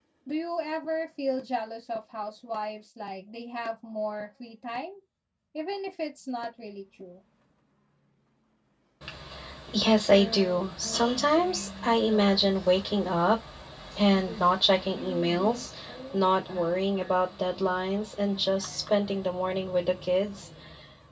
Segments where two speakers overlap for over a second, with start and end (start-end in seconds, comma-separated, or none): none